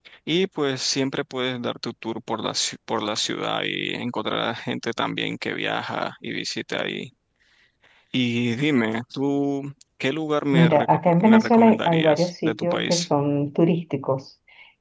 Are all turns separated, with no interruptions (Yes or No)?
No